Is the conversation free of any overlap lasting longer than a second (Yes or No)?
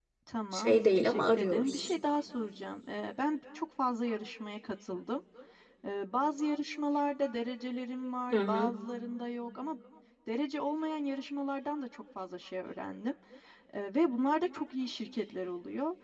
No